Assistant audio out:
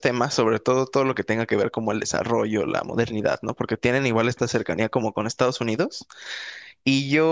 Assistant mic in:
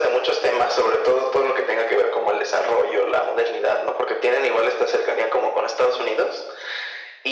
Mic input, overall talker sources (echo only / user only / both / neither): echo only